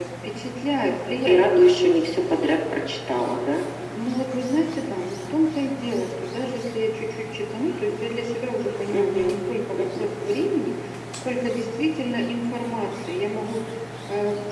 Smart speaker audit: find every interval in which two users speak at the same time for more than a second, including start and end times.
none

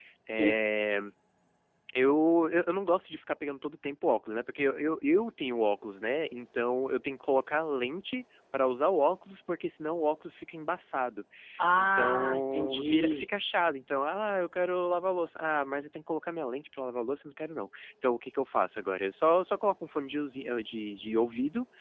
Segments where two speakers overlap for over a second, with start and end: 11.7-13.2

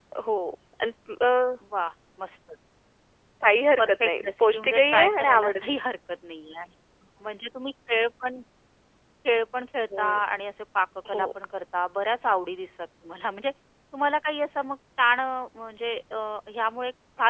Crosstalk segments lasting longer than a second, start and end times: 3.8-5.8

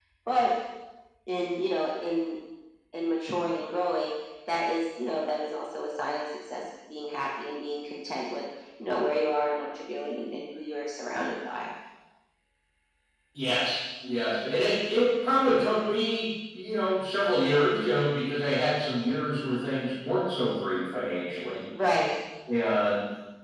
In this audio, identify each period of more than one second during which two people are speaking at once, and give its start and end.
none

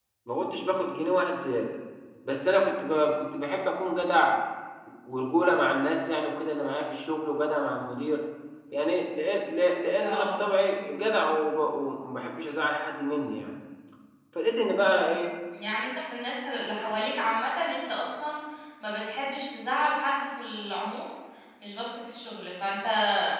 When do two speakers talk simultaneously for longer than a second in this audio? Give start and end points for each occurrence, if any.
none

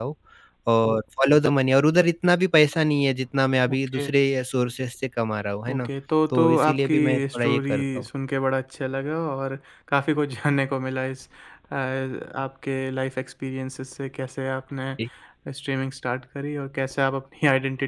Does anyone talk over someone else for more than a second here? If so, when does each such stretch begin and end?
6.3-8.1

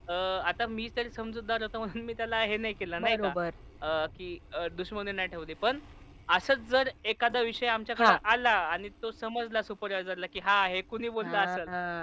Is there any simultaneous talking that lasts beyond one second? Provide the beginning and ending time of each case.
none

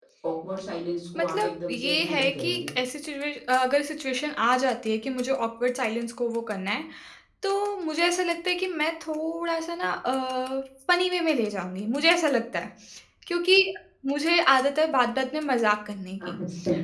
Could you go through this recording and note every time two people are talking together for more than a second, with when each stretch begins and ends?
1.2-2.6

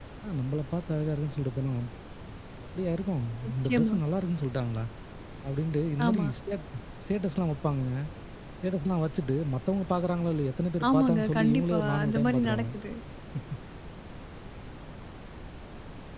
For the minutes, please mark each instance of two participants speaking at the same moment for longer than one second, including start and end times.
10.9-12.7

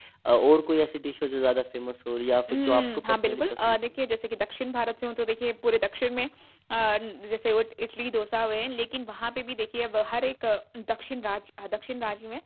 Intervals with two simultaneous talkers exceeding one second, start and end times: 2.5-3.8

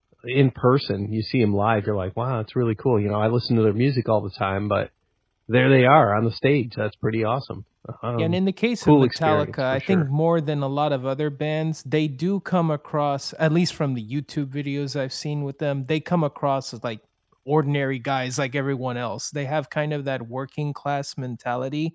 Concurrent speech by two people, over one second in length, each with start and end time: 8.8-10.0

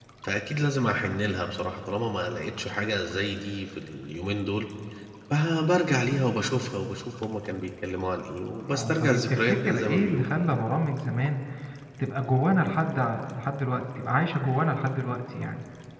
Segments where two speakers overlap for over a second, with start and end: 8.7-10.3

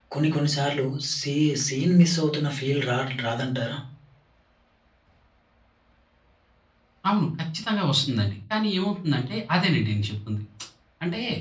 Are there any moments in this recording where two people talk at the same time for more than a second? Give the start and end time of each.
none

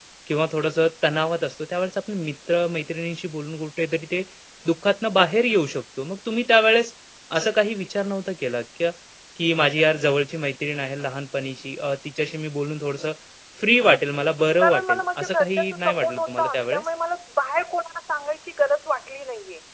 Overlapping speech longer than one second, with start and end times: 14.6-16.9

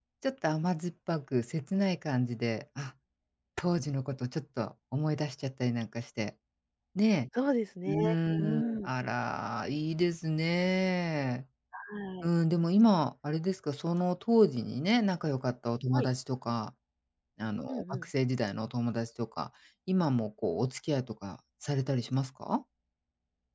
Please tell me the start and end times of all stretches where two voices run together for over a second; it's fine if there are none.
none

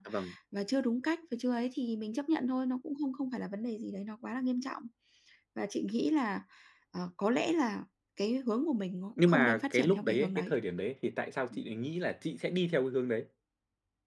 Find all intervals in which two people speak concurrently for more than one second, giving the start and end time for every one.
9.2-10.5

